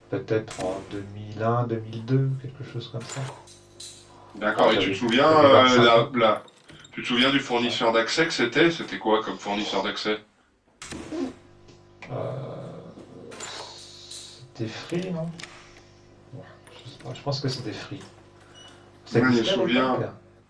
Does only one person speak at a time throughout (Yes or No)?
No